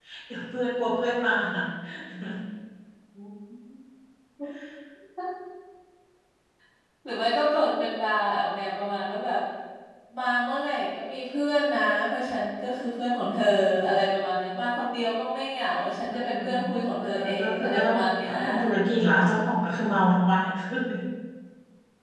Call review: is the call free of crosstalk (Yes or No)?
No